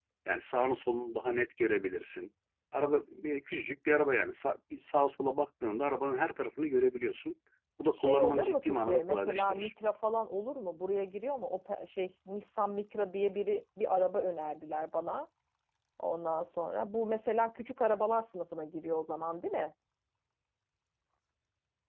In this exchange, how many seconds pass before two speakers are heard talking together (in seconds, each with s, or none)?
7.9 s